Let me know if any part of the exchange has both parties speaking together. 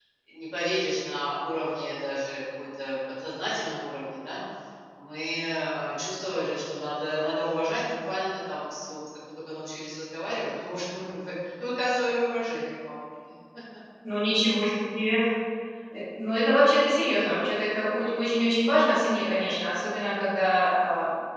No

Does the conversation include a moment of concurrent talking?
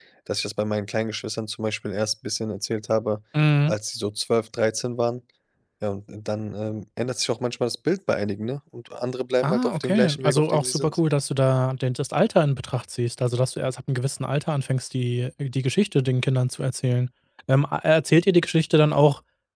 Yes, from 9.4 s

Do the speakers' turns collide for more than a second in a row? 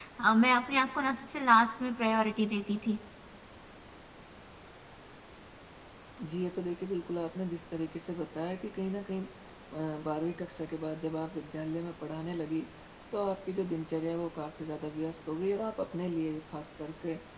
No

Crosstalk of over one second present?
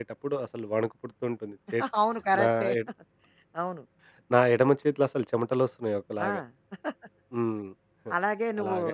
No

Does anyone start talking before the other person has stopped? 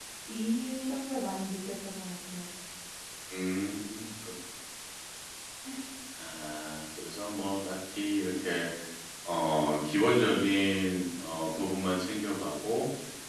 No

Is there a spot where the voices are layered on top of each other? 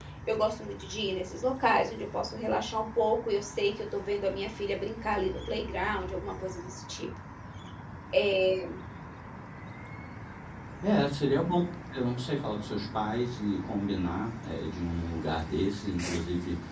No

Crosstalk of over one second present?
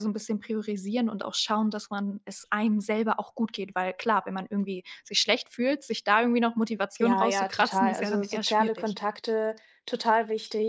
Yes, from 7.0 s

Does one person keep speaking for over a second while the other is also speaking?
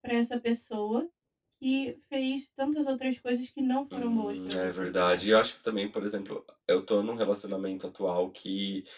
Yes, from 3.9 s

